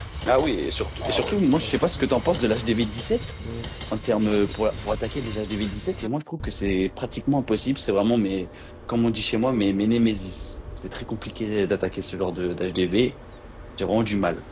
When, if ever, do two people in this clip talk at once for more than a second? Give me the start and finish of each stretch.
1.0-2.2

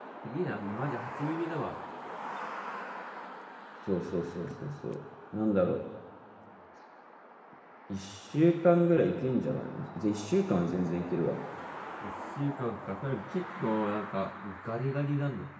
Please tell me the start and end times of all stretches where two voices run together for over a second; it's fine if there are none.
none

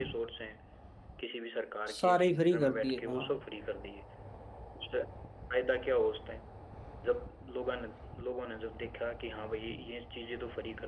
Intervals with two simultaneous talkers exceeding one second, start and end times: 1.9-3.4

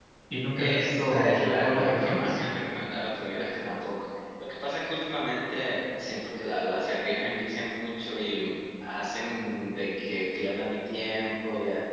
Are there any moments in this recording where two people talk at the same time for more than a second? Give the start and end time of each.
0.6-2.4

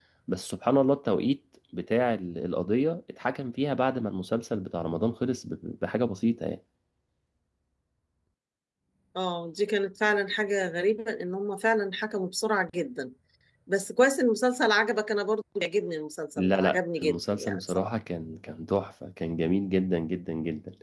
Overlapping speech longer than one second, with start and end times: 16.4-17.9

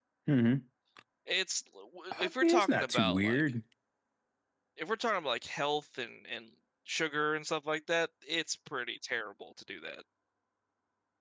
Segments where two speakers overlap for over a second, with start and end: 2.2-3.4

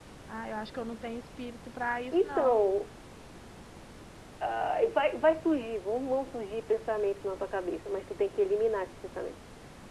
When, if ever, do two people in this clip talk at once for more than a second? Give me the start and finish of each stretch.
none

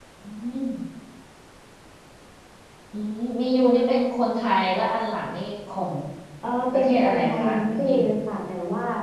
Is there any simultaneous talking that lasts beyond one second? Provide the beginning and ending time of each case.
6.7-8.0

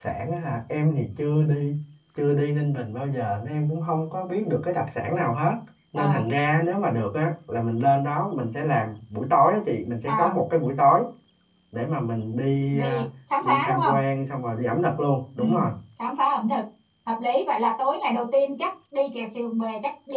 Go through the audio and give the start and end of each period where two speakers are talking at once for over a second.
none

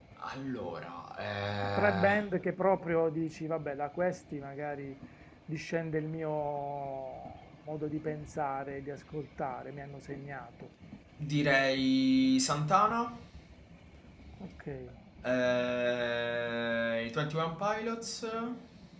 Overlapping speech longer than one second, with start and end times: none

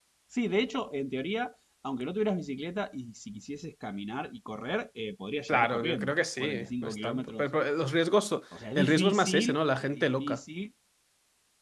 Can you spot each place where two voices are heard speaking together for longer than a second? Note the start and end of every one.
5.5-7.5, 8.8-10.4

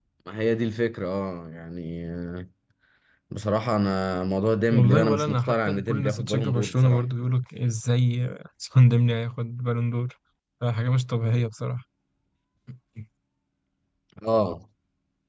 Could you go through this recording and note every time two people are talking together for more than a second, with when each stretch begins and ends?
4.7-7.0

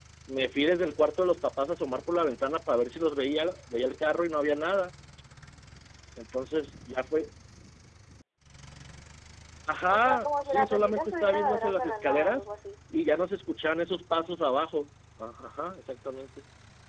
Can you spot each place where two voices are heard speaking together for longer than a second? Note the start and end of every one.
9.9-12.4

